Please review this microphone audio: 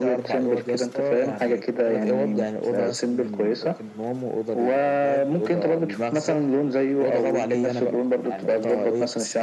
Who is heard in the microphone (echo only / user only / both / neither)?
echo only